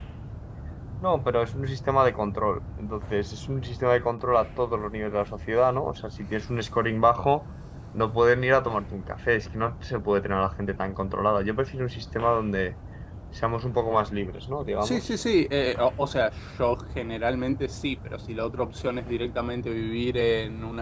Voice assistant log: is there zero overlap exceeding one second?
Yes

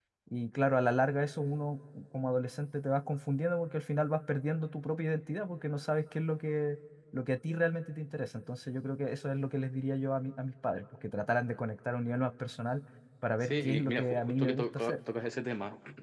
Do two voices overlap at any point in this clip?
Yes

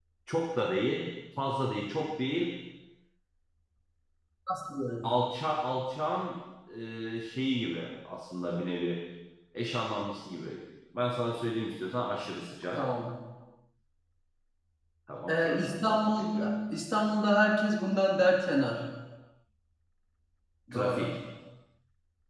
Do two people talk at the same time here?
Yes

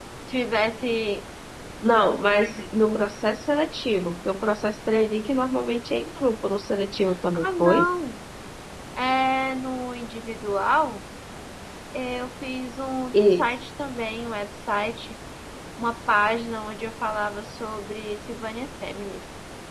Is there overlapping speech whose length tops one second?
No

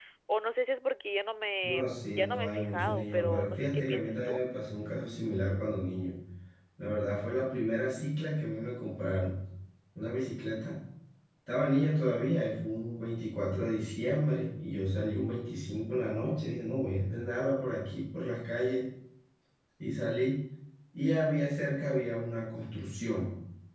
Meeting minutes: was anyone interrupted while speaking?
Yes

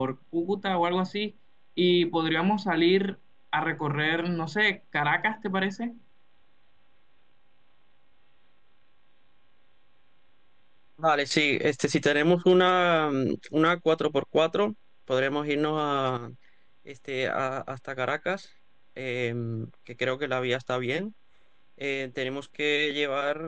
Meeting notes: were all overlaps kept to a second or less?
Yes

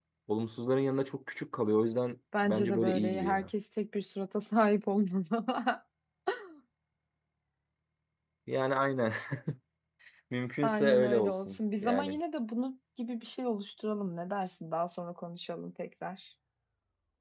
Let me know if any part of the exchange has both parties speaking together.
Yes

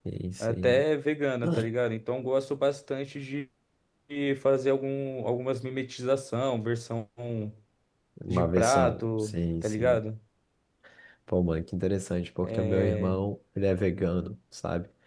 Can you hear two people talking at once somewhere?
Yes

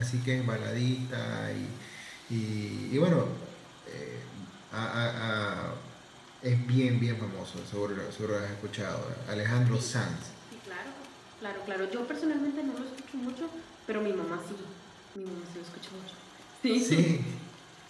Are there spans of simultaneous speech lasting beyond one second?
No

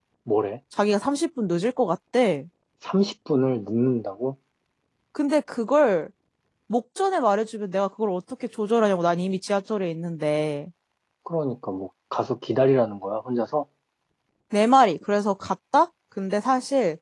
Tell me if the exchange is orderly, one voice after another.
Yes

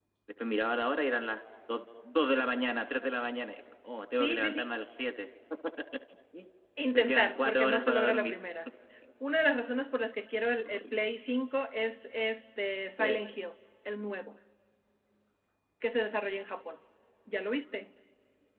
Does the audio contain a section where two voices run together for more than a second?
Yes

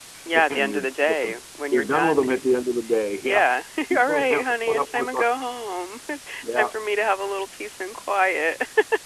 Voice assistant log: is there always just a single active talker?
No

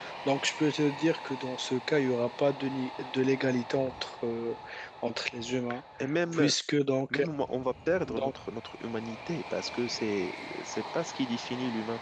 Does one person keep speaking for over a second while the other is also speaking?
No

